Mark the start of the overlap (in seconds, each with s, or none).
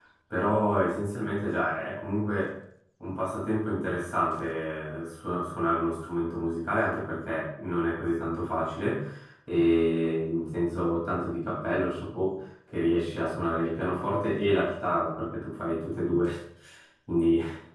none